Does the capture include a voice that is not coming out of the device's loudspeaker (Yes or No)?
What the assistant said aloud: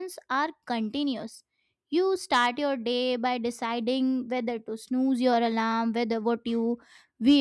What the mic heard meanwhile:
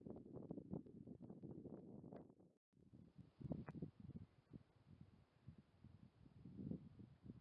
No